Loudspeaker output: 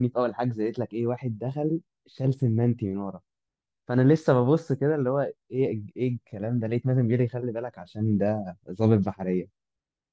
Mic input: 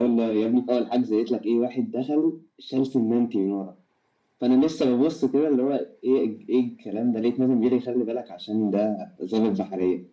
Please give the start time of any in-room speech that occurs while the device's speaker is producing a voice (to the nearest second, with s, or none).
none